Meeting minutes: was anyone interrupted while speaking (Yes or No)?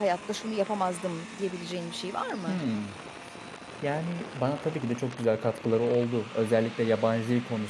No